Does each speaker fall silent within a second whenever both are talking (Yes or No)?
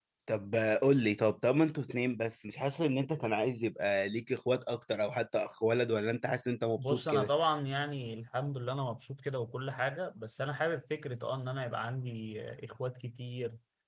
Yes